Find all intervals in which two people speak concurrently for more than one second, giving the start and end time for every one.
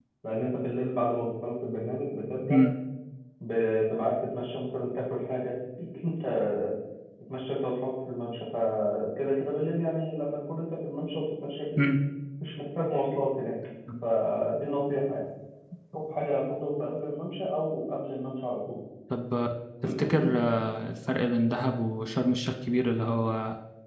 none

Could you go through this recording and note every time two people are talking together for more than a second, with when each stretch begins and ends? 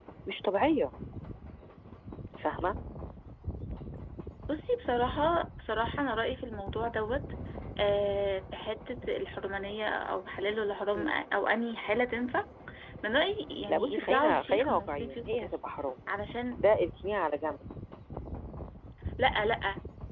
13.7-15.6

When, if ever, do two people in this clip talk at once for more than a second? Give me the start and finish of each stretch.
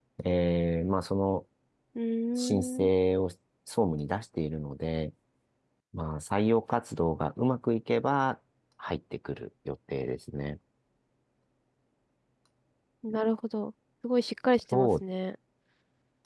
none

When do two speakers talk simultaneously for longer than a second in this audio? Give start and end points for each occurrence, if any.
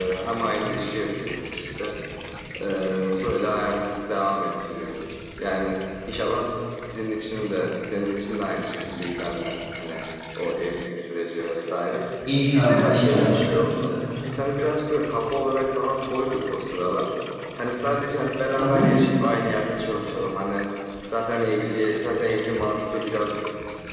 12.6-13.9

